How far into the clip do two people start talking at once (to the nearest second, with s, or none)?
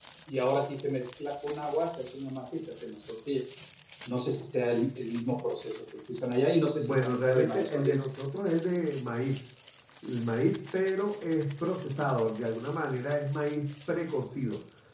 7 s